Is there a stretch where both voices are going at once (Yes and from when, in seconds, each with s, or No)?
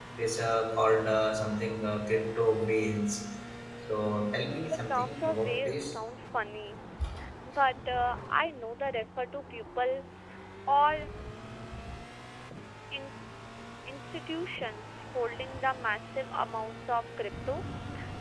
Yes, from 4.6 s